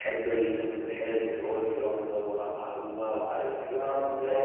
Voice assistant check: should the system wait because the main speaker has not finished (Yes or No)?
No